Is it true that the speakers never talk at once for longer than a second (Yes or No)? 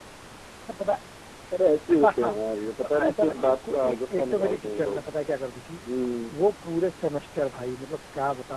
No